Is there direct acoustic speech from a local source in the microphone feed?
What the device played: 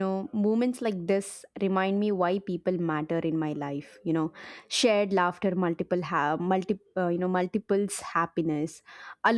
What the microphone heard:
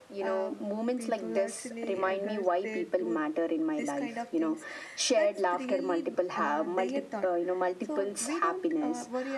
Yes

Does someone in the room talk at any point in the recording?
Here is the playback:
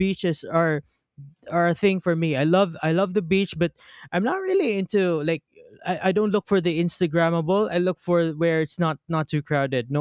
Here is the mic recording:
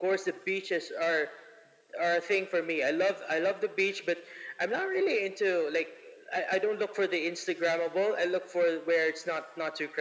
No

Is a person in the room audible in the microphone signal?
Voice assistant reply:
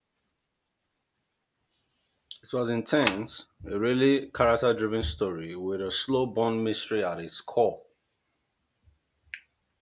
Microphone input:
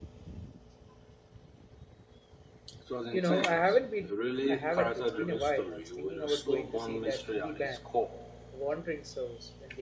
Yes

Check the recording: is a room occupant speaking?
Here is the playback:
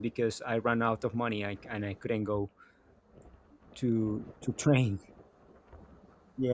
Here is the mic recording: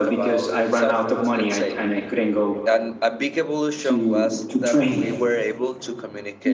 Yes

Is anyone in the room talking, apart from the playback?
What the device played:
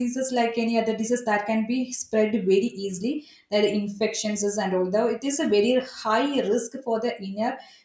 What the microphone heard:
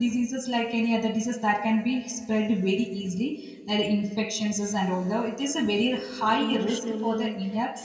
Yes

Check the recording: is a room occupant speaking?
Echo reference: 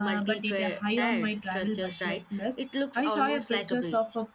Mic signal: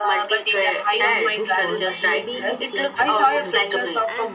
Yes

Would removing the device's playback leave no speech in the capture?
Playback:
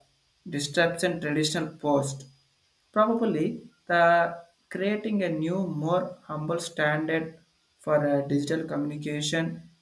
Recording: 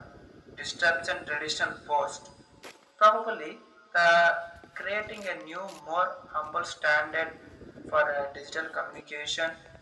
Yes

